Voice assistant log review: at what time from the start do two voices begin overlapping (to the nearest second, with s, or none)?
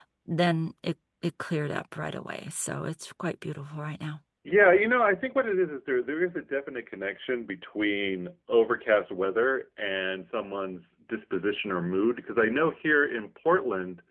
none